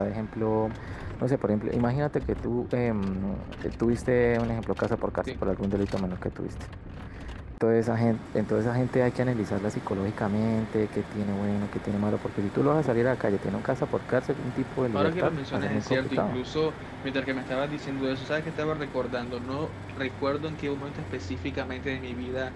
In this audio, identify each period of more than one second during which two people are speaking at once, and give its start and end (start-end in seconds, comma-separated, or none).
14.9-16.4